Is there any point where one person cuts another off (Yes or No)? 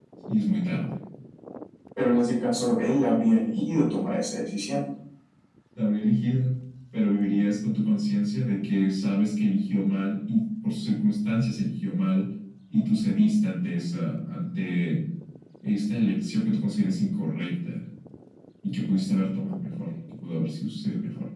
No